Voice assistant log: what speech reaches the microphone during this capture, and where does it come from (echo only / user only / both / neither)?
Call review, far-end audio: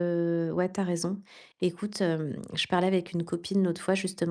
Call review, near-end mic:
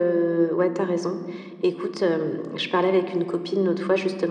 echo only